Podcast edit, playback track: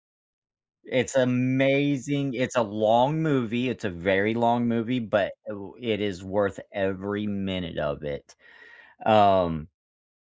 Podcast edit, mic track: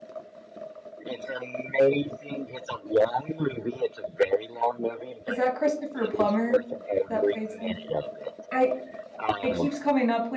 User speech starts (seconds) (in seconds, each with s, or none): 5.3 s